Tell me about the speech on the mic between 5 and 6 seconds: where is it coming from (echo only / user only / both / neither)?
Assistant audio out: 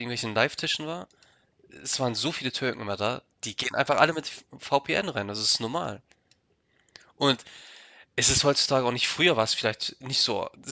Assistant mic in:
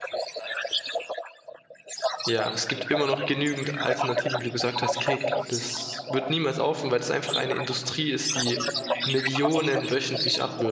both